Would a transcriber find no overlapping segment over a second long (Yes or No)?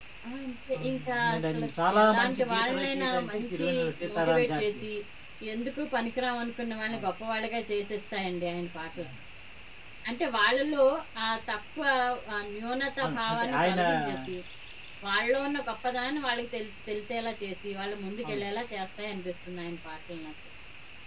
No